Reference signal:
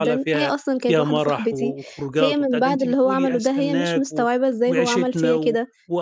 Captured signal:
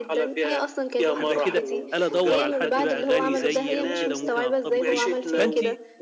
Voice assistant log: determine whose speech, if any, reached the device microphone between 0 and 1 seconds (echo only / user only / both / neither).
echo only